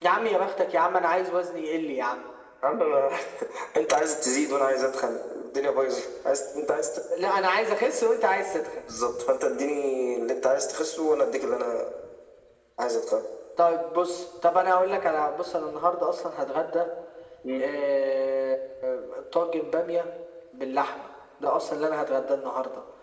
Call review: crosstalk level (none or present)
none